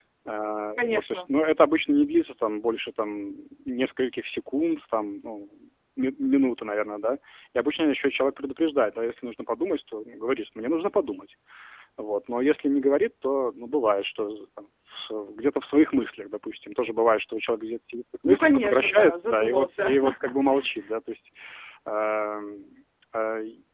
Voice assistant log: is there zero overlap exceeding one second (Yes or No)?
No